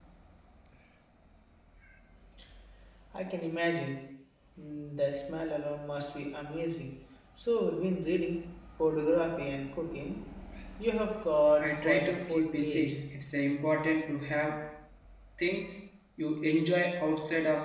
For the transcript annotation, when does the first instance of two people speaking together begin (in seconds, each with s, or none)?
11.6 s